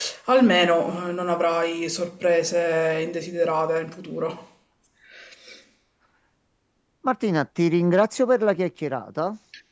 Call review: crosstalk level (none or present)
none